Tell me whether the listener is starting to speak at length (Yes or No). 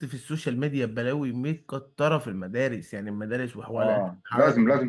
Yes